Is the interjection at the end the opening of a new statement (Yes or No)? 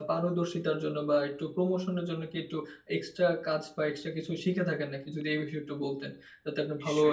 Yes